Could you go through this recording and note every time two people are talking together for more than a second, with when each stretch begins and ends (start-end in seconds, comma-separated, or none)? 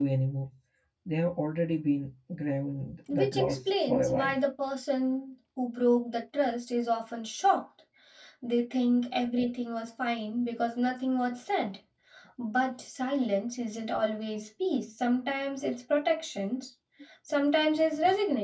3.1-4.3